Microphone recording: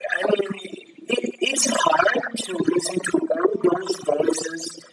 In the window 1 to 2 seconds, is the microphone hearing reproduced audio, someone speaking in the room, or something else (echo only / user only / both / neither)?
echo only